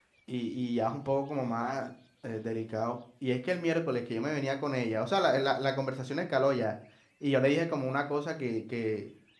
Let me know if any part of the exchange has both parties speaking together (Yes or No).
No